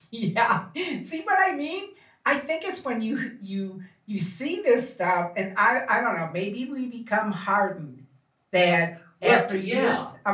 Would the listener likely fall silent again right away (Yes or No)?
Yes